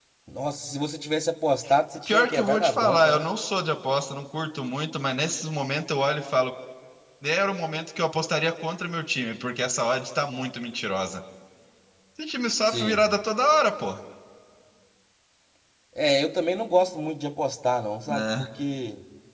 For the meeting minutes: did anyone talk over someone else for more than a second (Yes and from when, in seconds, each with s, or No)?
Yes, from 2.1 s